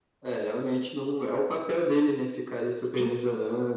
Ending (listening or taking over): taking over